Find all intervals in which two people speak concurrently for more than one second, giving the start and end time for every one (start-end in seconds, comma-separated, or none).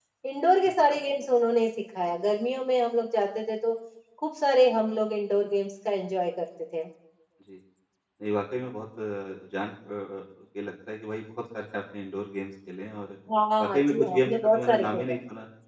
13.6-15.2